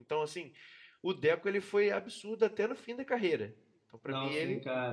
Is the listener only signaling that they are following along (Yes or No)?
No